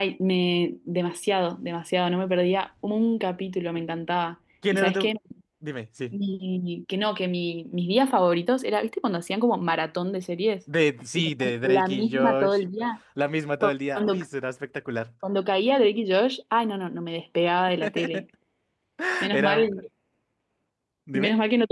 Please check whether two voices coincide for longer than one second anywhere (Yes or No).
Yes